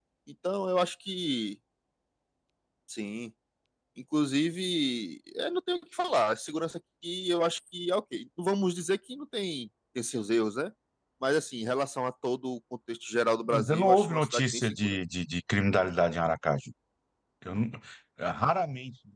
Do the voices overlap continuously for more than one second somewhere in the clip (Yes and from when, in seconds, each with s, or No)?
Yes, from 13.5 s